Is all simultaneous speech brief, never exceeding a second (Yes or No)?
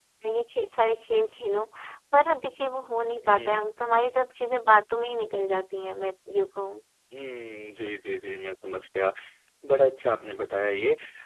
Yes